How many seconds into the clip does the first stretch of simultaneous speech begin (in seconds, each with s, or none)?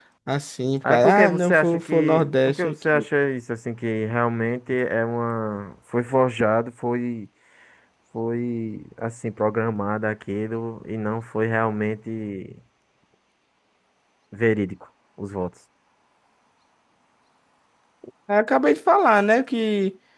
0.9 s